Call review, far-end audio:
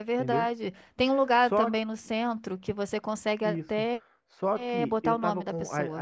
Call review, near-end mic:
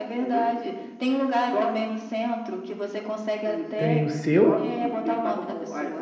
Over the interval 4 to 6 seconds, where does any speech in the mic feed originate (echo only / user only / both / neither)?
both